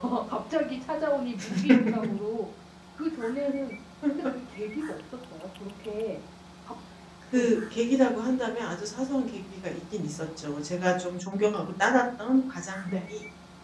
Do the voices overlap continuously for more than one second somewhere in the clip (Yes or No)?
No